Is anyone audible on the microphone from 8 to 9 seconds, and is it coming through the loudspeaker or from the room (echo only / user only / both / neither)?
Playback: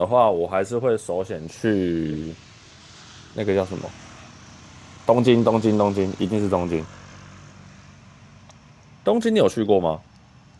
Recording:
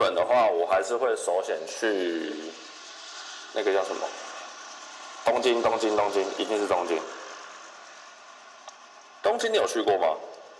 neither